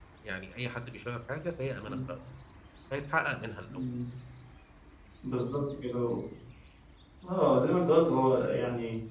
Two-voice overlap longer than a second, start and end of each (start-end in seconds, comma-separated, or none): none